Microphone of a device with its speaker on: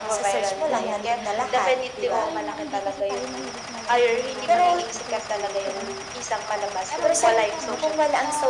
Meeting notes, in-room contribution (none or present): present